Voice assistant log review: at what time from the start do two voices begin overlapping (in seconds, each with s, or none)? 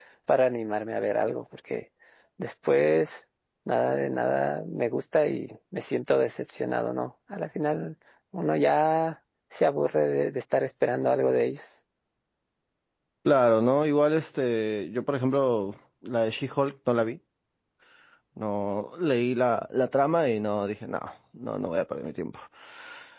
none